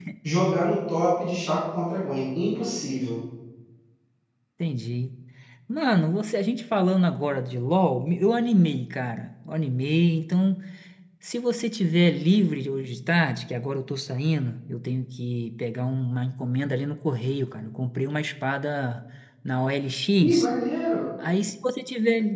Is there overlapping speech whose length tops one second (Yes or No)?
No